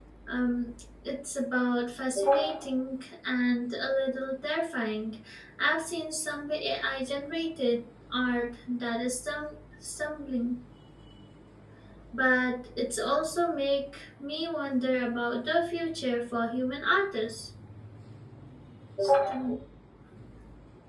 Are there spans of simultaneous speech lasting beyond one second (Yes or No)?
No